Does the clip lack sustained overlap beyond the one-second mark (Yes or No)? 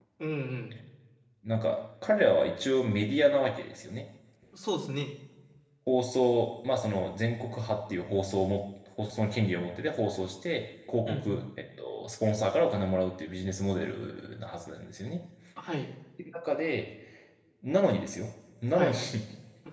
Yes